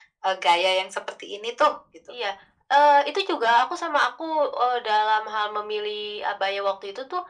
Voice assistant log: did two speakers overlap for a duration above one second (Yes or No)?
No